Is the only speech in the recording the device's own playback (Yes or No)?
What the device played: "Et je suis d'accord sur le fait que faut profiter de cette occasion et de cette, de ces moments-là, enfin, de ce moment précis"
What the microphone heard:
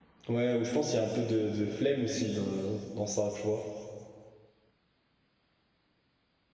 No